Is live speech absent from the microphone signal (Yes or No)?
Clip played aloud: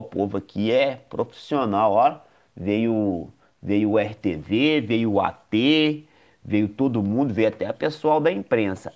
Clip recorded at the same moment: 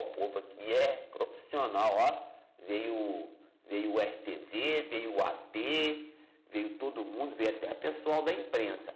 Yes